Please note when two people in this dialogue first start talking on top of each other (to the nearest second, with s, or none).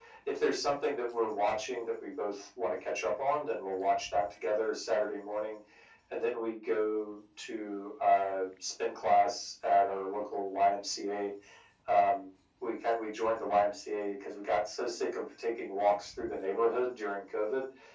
none